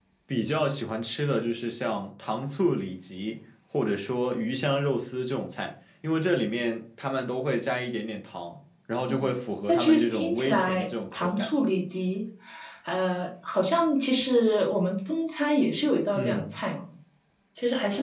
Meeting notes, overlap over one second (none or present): present